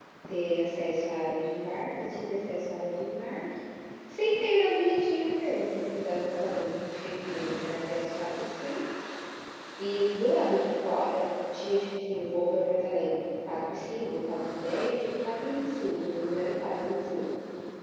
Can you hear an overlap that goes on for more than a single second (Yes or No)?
No